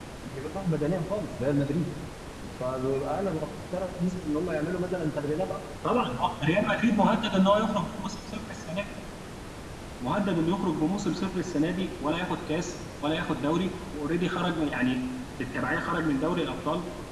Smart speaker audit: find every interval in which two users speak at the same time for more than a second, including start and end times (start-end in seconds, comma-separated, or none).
none